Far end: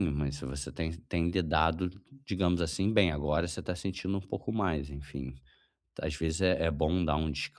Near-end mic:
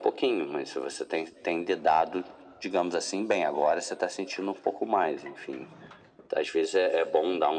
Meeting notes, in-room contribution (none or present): none